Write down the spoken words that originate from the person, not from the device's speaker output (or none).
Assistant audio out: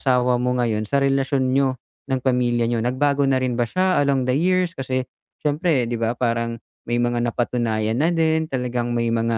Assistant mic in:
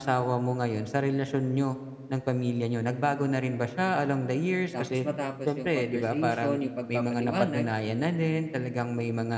Tapos matapos yung conversation, yung pagpapaliwanag